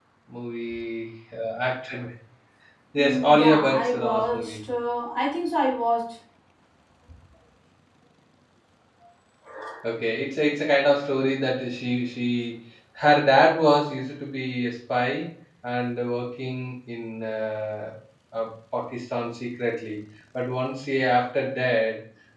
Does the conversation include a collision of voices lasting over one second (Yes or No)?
Yes